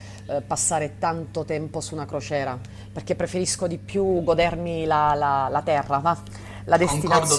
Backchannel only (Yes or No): No